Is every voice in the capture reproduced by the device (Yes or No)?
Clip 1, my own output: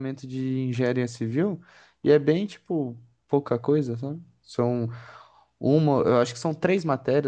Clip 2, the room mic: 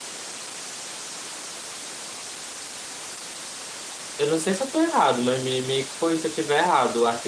No